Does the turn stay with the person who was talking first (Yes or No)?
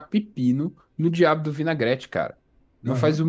Yes